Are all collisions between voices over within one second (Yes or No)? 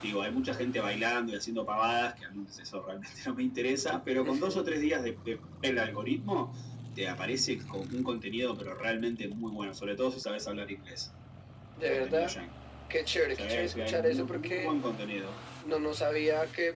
No